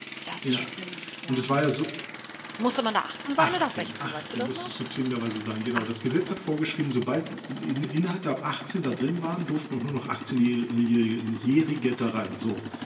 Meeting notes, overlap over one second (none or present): present